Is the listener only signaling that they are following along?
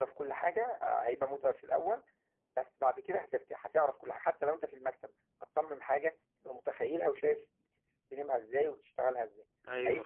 No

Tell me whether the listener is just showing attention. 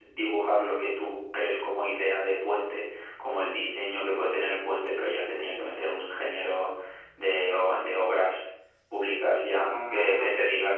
Yes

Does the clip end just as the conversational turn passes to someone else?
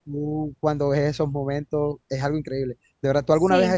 No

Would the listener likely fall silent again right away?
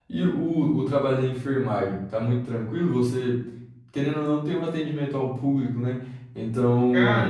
Yes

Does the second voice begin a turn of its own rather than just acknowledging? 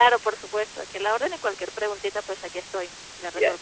Yes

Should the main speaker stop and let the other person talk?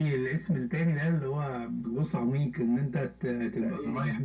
No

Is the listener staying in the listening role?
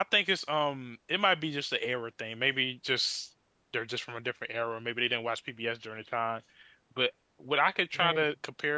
Yes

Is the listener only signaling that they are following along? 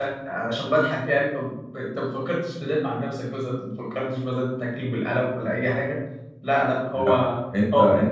No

